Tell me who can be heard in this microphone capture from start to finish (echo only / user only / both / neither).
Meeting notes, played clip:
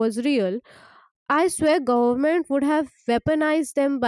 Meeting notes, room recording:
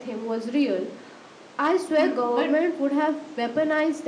both